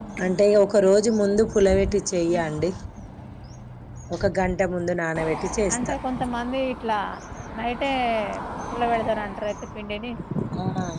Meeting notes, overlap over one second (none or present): none